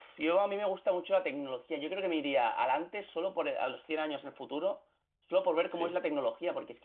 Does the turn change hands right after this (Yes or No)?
No